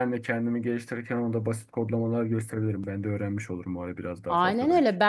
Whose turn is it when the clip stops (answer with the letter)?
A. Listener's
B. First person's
A